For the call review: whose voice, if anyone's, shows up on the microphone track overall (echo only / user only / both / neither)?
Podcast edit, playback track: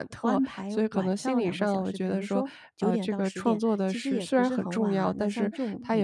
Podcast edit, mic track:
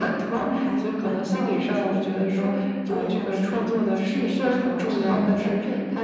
both